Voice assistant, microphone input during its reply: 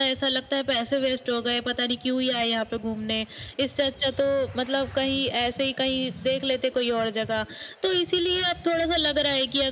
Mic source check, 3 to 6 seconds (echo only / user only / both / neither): echo only